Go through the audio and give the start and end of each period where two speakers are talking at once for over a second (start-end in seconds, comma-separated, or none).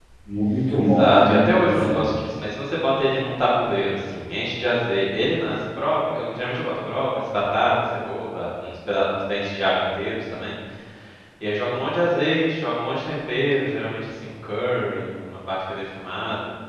0.8-2.0